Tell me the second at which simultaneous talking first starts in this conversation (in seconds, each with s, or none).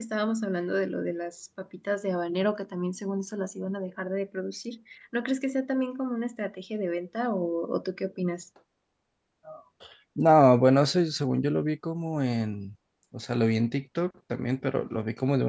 none